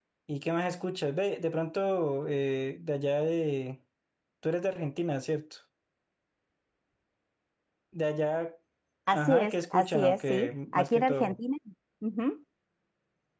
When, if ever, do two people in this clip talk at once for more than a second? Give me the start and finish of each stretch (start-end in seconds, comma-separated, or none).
9.1-11.4